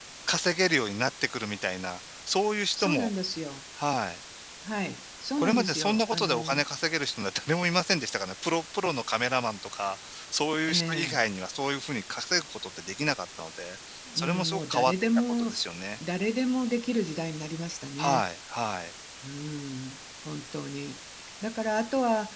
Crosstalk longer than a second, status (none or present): present